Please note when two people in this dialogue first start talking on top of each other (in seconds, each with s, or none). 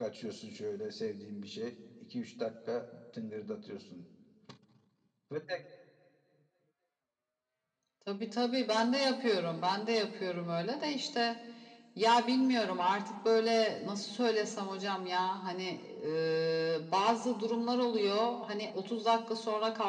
none